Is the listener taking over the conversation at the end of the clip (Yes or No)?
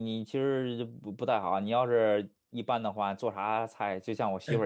No